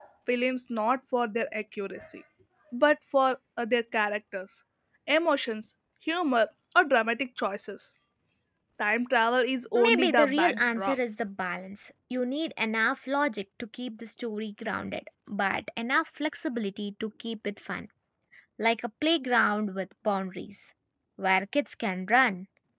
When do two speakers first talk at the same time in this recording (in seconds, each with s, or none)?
9.8 s